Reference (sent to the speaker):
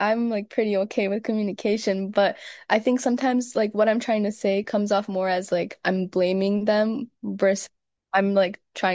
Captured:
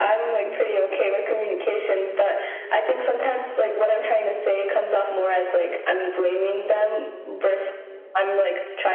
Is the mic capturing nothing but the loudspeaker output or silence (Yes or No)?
Yes